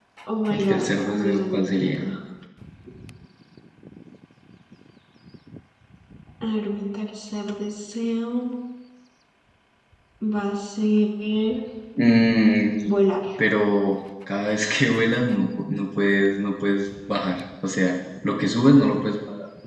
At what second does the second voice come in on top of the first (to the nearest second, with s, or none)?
1 s